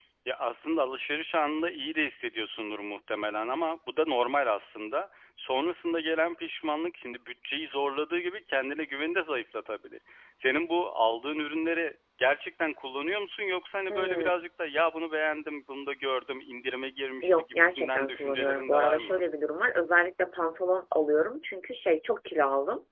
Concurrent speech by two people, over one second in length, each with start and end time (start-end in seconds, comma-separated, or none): 17.2-19.2